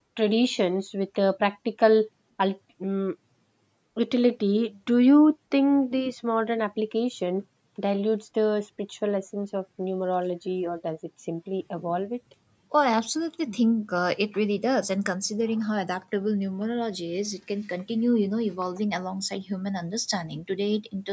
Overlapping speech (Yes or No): No